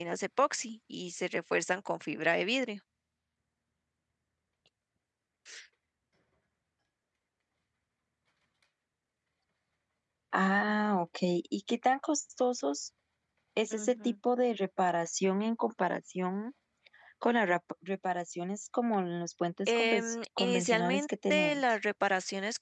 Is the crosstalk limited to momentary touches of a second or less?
No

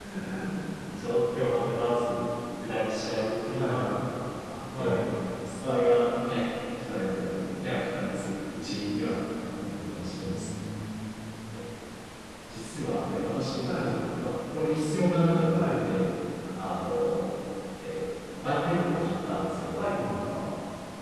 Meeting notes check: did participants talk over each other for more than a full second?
No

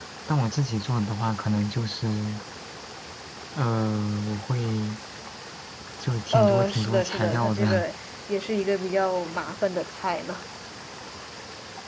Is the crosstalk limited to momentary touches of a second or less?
No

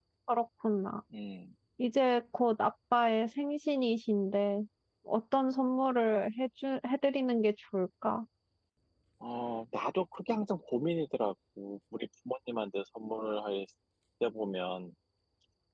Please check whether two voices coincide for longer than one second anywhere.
No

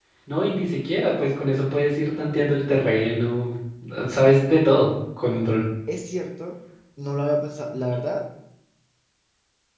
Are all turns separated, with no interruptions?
Yes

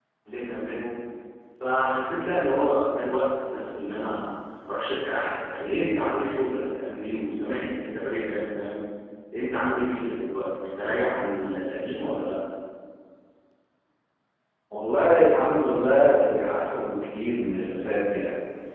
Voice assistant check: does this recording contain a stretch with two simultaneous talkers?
No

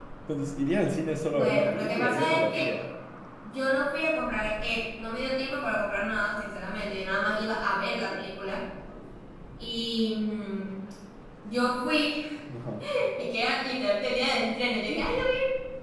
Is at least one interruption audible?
Yes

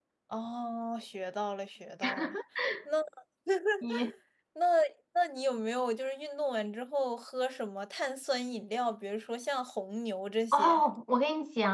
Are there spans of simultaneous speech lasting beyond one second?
No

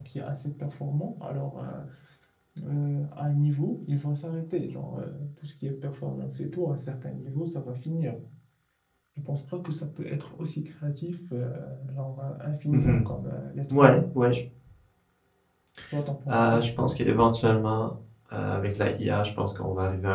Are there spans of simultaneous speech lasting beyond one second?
No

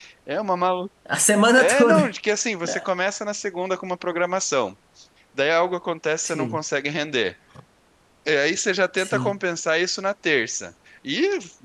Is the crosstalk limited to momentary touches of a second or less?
Yes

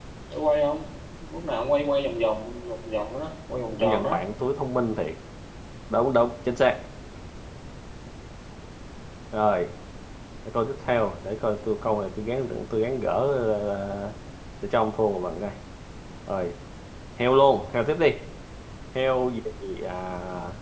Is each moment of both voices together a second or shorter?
Yes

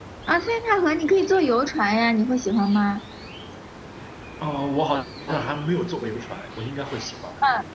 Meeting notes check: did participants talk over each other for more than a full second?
No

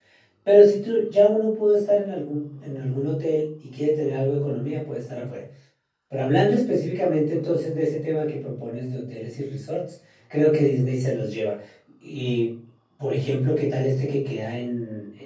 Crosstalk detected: No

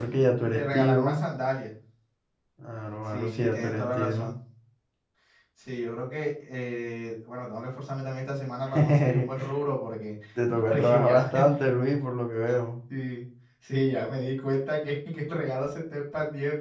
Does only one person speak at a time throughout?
No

